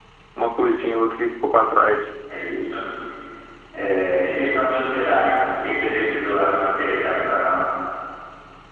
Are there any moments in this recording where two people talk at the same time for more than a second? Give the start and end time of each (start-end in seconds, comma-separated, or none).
none